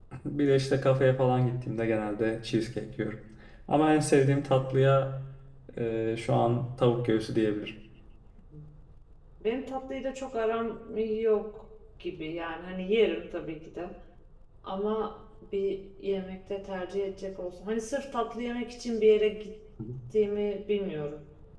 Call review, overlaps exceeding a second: none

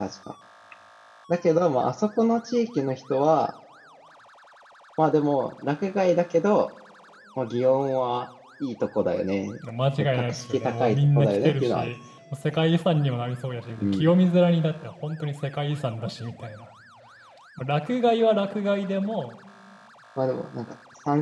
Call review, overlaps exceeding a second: present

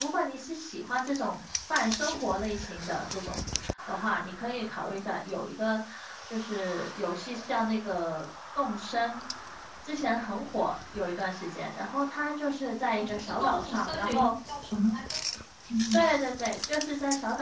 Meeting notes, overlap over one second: present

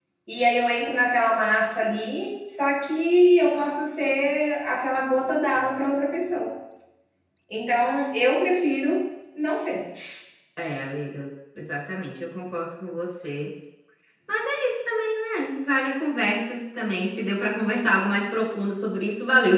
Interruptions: none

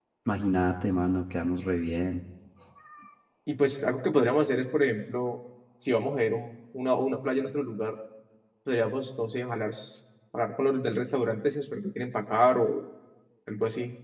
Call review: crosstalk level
none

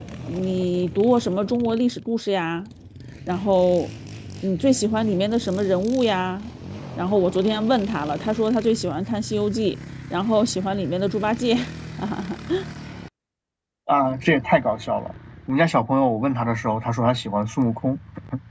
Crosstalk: none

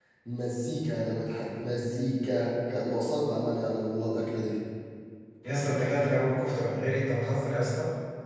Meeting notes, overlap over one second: none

